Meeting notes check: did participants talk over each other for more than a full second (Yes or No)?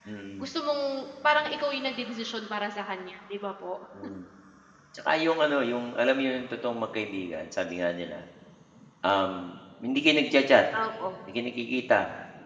No